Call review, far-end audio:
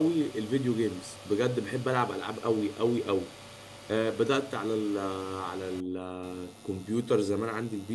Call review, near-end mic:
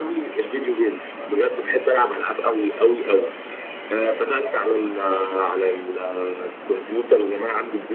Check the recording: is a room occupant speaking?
No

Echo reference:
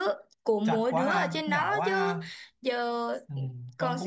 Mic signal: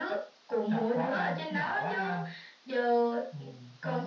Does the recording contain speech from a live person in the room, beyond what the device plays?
No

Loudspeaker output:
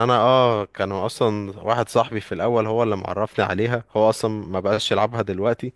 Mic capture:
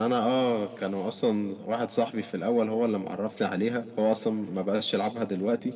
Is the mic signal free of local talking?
Yes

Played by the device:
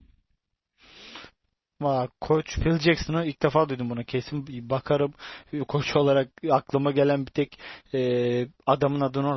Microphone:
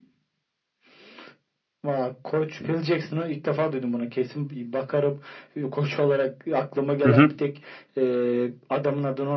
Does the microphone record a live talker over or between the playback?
Yes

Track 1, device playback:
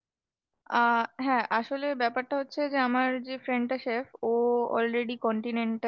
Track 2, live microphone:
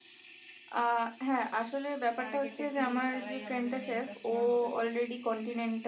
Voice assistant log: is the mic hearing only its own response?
No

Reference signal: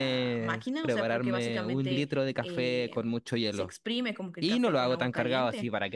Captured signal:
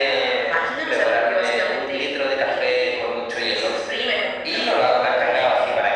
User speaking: No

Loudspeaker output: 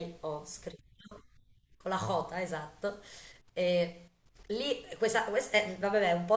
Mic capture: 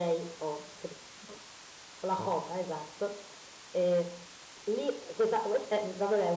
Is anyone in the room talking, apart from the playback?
No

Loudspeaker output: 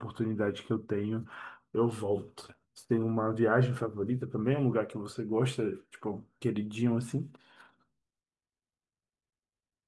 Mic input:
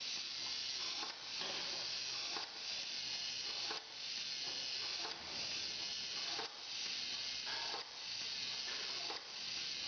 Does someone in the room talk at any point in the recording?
No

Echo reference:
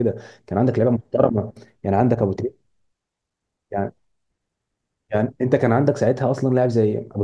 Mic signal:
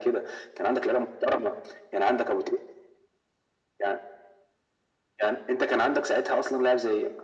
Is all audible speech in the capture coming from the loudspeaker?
Yes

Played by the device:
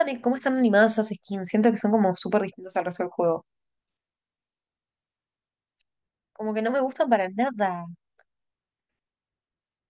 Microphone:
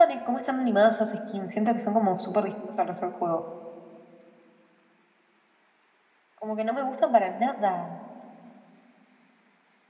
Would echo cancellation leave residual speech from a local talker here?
No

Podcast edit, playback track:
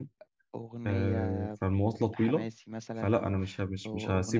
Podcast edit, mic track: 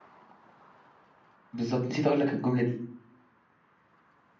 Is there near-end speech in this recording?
Yes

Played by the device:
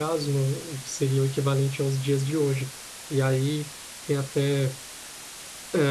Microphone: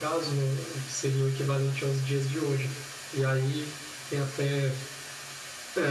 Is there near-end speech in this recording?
No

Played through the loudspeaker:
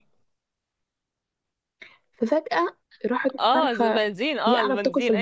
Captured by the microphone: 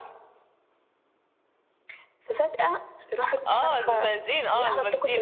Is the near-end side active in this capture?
No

